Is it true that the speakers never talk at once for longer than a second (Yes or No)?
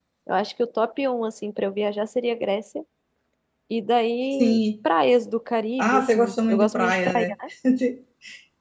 No